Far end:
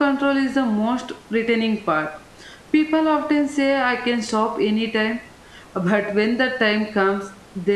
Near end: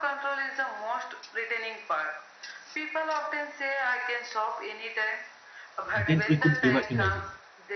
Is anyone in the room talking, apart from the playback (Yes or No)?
Yes